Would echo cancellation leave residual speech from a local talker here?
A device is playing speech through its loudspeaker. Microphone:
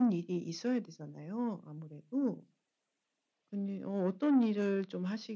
No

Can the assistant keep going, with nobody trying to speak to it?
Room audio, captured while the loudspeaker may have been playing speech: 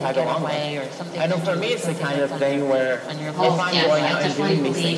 No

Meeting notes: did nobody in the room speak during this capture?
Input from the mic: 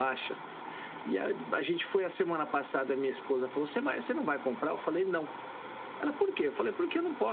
Yes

